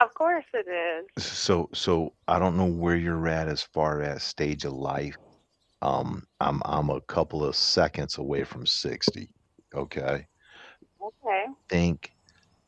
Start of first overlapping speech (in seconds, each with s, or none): none